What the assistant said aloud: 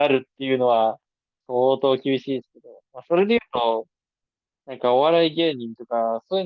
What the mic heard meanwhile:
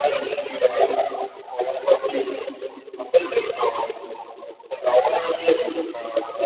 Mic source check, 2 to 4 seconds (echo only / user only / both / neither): echo only